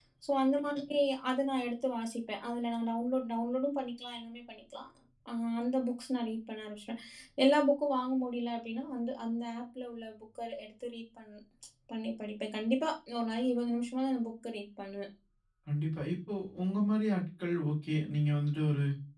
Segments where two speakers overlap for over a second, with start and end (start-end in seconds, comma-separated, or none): none